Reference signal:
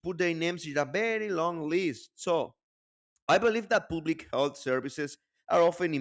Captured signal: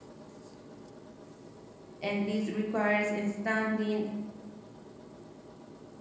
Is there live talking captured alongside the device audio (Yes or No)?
Yes